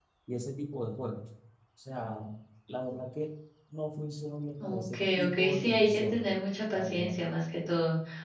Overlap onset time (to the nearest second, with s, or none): 5 s